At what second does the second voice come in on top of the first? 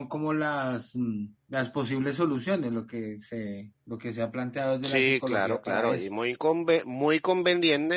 4.8 s

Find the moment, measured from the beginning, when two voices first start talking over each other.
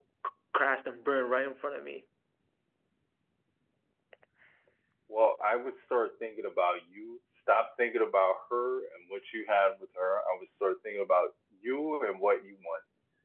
none

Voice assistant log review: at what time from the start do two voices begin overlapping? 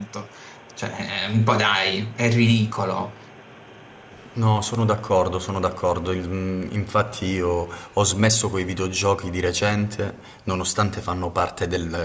none

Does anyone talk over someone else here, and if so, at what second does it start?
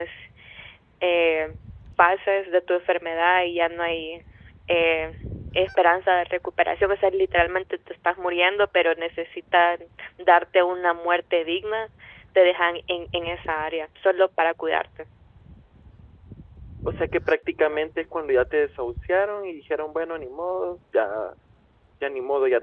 none

